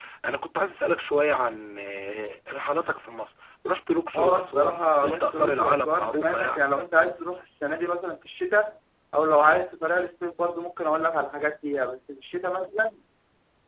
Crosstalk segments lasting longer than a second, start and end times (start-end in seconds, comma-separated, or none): 4.2-6.6